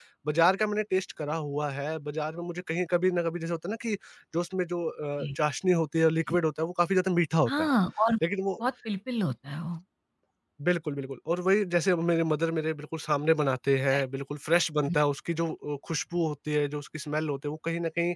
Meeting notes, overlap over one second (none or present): none